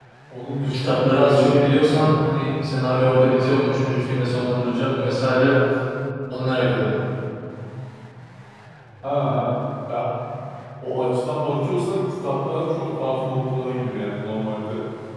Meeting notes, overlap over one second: present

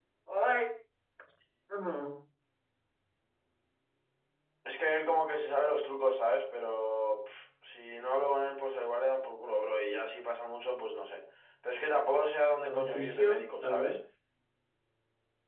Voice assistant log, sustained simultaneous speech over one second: present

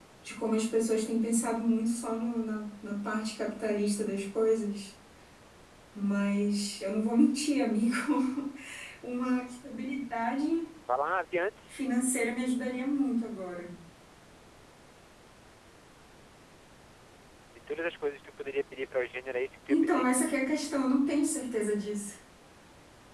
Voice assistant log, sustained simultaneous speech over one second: none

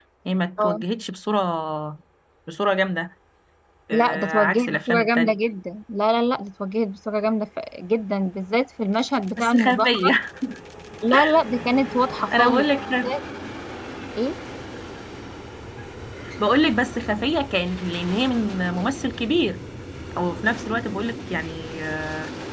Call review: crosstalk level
present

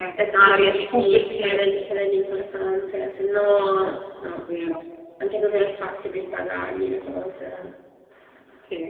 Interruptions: present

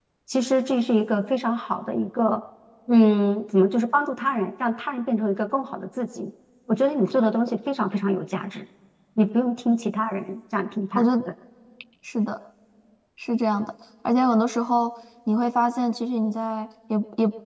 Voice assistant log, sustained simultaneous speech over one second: none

